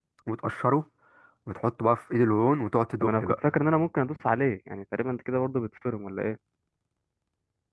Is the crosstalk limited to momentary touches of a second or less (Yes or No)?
Yes